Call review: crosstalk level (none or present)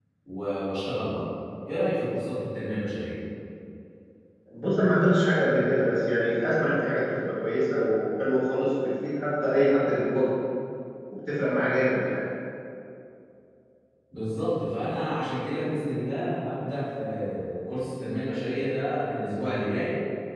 none